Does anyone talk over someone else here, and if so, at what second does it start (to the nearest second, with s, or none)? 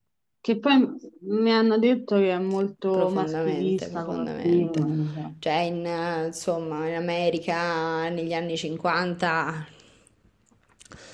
3 s